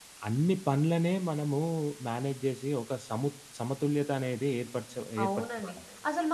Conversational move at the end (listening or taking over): taking over